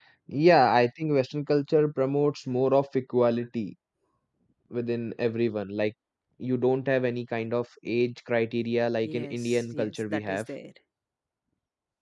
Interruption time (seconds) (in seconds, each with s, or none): 9.1 s